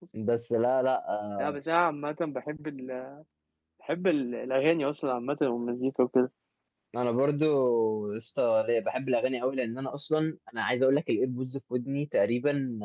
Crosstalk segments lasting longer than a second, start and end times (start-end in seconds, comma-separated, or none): none